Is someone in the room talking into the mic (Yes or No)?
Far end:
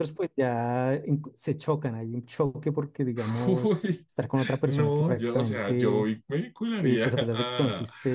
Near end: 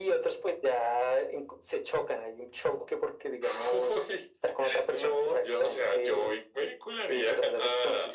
No